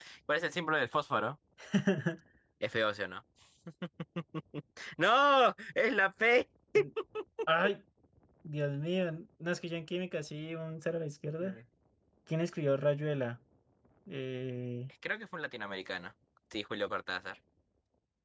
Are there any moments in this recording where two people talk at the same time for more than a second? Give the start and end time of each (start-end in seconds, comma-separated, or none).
none